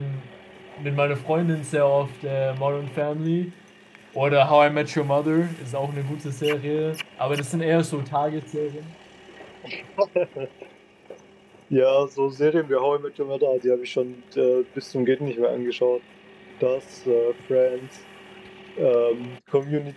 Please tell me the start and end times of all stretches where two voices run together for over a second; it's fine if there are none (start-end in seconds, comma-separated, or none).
none